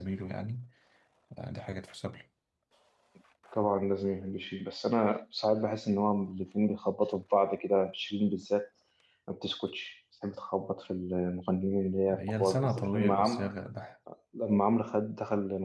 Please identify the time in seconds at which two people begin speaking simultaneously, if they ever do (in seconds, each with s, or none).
12.1 s